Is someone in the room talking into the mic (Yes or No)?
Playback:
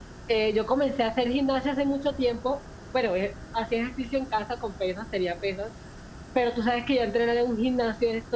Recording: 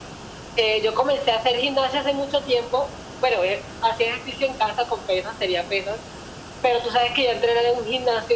No